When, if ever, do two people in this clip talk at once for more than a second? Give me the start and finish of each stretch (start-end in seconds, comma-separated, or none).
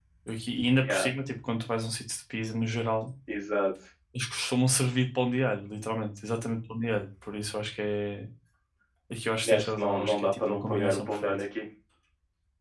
9.5-11.3